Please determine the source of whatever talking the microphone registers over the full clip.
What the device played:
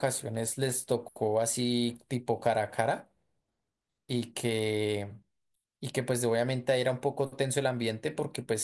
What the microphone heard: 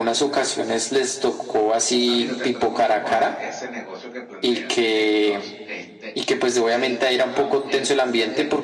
both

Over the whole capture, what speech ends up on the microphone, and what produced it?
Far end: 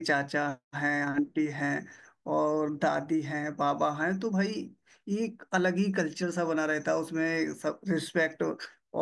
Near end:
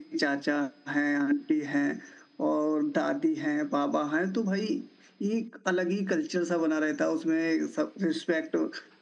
echo only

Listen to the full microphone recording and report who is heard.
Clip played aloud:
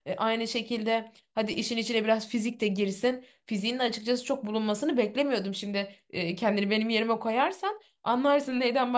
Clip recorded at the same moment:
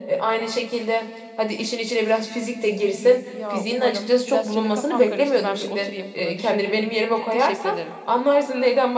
both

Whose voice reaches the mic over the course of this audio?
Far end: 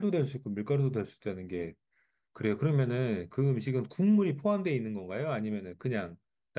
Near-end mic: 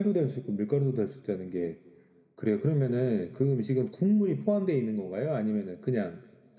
echo only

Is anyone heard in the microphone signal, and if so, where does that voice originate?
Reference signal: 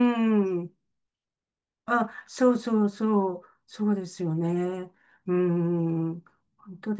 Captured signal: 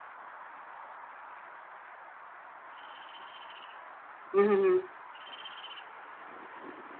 user only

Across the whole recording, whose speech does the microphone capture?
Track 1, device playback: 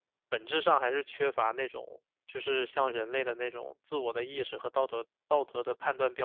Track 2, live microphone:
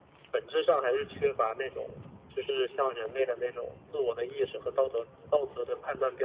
echo only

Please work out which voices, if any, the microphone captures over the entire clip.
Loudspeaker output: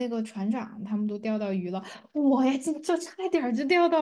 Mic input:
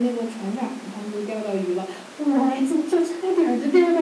echo only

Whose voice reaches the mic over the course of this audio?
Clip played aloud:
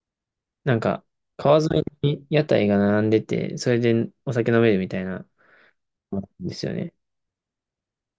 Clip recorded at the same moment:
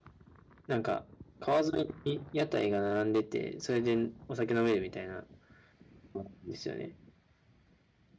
echo only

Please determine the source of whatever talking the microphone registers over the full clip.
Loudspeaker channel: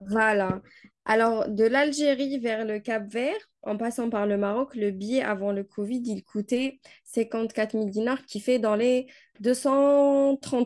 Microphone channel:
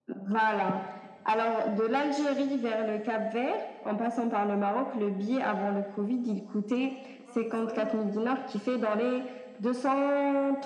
both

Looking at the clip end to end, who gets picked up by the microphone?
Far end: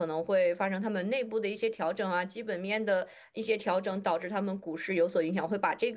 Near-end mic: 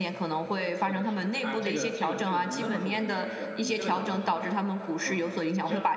both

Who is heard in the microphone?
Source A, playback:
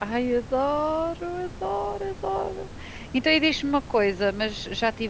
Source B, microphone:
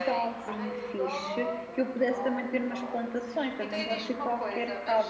both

